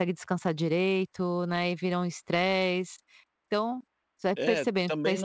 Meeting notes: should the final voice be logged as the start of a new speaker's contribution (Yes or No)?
Yes